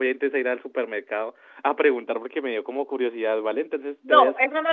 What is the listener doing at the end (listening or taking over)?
taking over